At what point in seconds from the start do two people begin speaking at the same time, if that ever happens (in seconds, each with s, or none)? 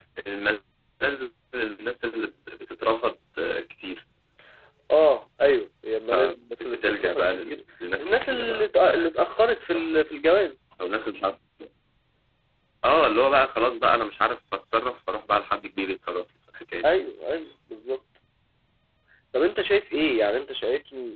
6.1 s